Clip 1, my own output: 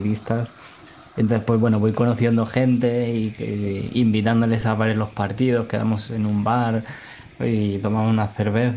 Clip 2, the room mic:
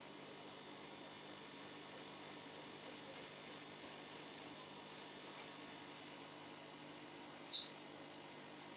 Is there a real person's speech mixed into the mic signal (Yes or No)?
No